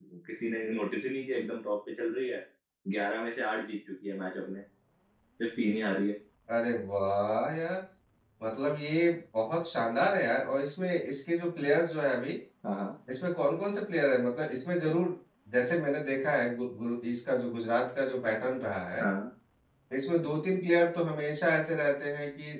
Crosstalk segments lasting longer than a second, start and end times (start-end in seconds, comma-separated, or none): none